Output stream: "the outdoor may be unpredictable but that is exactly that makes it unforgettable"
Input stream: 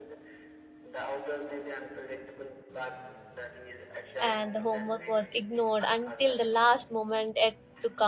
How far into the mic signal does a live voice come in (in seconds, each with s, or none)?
4.2 s